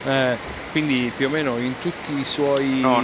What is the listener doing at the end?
taking over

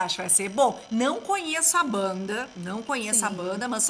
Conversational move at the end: listening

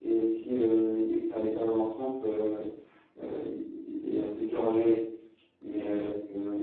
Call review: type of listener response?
listening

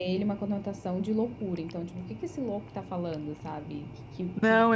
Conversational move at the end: taking over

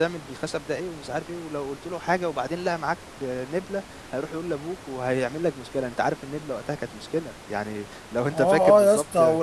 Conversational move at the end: taking over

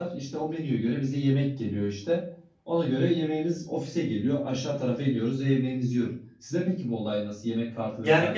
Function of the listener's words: taking over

